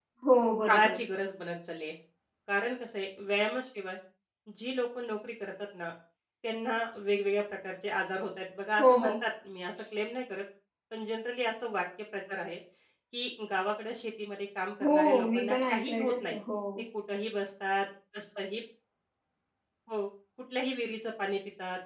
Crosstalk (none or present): present